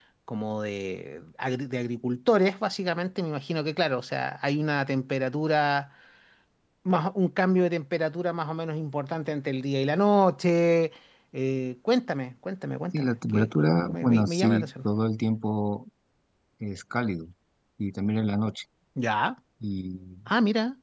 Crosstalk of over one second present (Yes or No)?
Yes